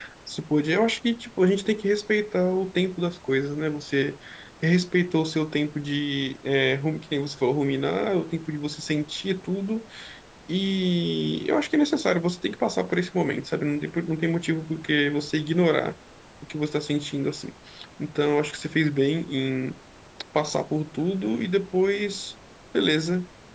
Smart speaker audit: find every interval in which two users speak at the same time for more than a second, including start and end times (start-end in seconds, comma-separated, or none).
none